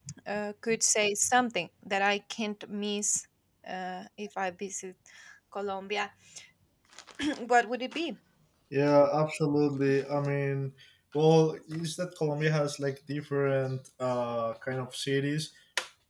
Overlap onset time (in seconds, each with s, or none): none